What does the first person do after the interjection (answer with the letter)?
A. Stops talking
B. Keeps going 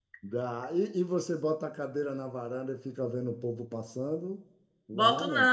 A